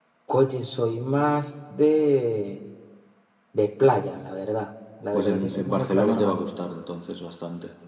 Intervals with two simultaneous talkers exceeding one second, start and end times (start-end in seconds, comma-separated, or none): 5.1-6.4